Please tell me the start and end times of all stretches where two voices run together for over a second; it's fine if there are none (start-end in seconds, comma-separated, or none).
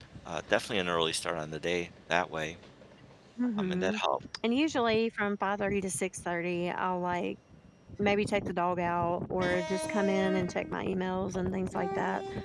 none